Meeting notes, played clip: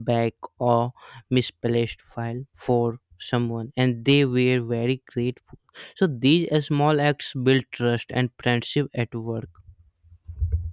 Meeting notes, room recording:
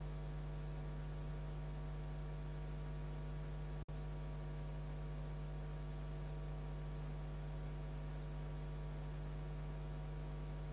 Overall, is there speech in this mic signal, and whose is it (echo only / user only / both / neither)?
neither